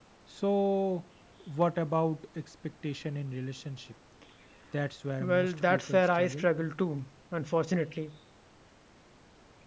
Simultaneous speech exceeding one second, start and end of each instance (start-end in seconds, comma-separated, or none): 5.2-6.4